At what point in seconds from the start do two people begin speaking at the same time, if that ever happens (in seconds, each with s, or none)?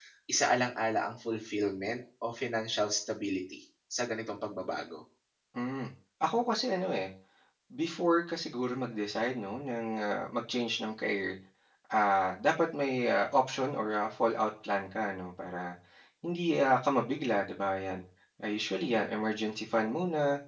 none